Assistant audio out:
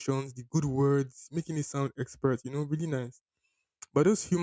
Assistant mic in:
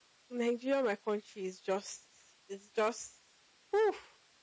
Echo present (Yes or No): No